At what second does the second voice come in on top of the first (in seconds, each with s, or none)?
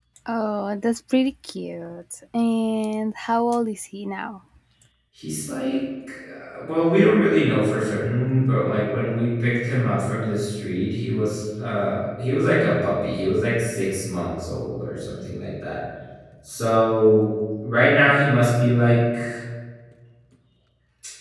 none